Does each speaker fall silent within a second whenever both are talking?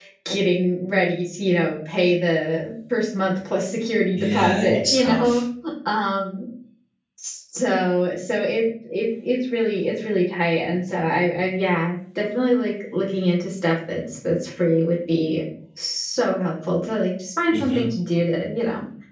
No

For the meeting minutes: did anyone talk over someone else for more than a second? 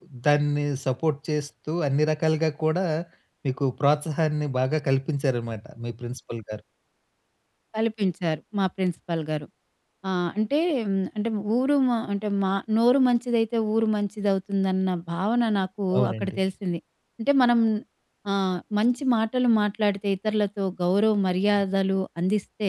No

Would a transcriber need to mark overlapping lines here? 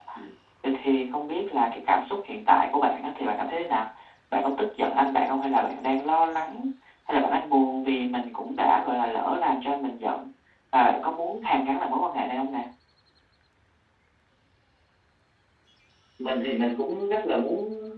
No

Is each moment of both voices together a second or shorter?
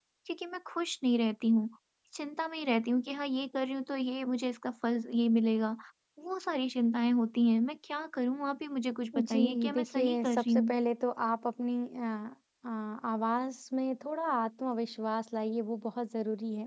No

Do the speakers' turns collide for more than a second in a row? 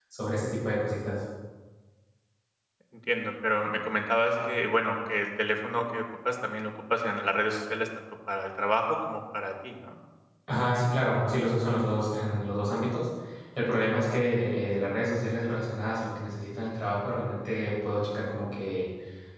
No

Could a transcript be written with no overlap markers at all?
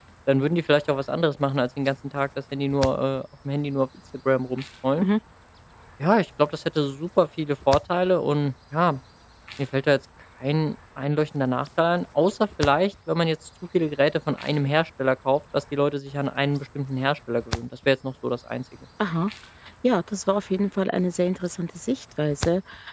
Yes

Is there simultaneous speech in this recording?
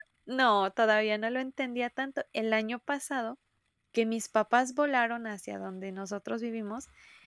No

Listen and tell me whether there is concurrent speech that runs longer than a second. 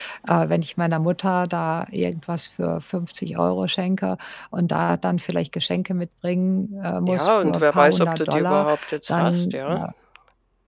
Yes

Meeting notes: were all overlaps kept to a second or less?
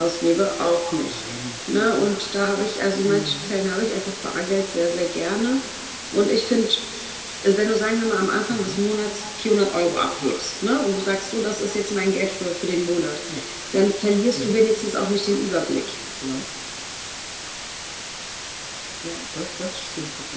Yes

